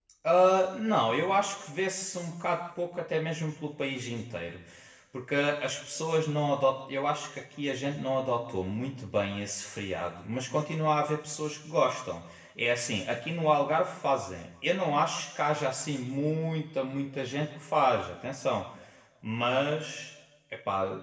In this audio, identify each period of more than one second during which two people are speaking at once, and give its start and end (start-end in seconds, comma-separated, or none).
none